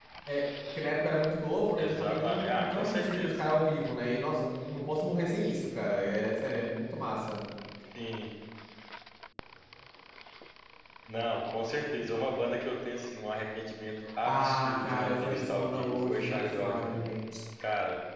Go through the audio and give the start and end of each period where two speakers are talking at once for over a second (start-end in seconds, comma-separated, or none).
1.8-3.4, 14.2-17.0